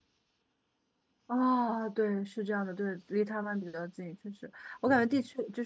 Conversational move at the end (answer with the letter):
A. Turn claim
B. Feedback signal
B